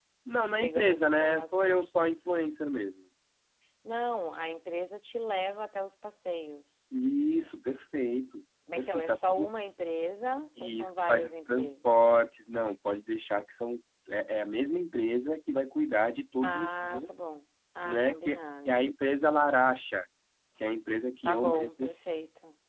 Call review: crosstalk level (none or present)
present